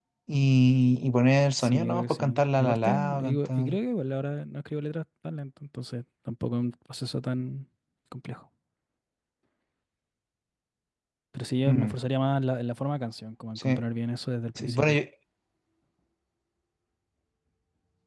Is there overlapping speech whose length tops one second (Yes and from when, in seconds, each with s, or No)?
Yes, from 1.6 s